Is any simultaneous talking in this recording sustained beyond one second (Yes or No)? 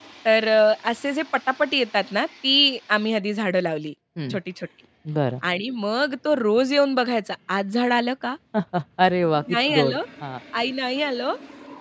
No